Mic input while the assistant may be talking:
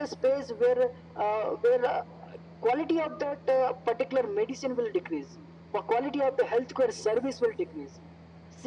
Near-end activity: none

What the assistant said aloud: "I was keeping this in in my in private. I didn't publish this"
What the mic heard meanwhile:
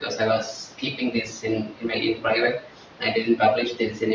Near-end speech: none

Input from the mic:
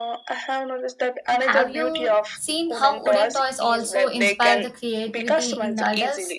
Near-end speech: present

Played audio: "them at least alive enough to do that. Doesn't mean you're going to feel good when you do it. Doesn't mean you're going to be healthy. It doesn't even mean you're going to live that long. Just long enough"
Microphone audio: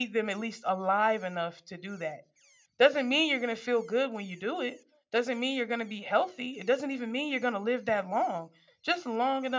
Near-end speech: none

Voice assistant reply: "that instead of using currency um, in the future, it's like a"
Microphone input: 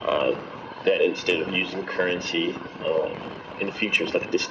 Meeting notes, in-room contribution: none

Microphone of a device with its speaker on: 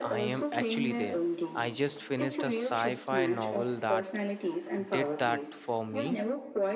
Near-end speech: present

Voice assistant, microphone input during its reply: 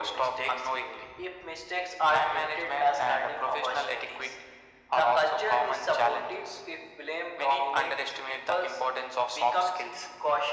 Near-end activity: none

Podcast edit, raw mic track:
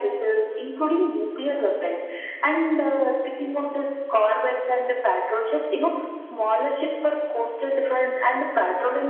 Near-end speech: none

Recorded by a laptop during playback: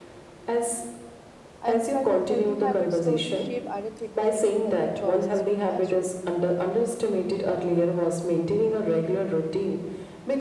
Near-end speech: present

